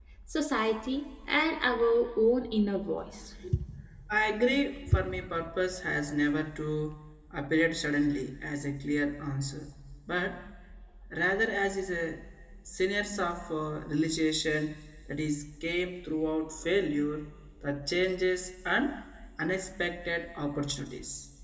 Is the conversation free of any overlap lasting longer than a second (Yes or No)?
Yes